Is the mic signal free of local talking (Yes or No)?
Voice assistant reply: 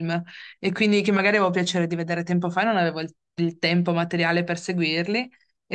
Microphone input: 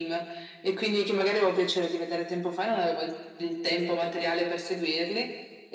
Yes